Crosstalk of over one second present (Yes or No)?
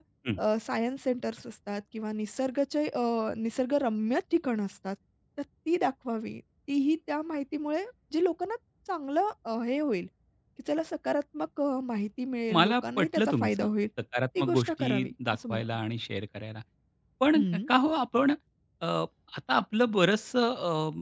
Yes